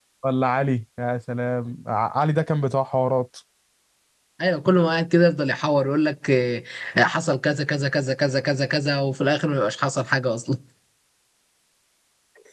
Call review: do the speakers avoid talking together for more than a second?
Yes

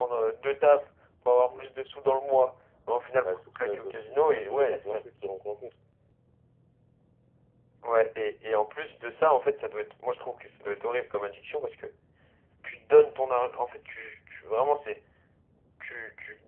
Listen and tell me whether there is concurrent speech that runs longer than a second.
Yes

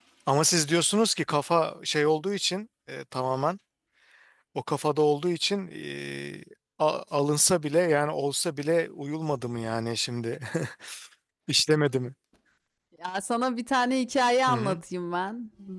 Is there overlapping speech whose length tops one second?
No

